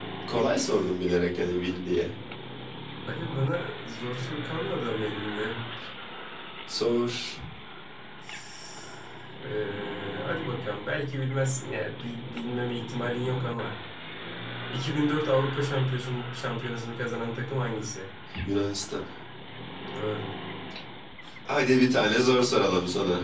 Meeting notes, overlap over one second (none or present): none